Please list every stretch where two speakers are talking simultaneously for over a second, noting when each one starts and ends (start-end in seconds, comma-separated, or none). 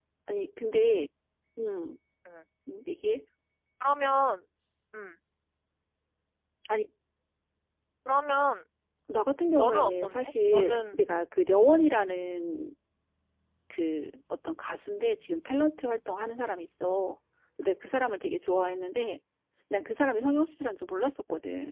9.6-11.0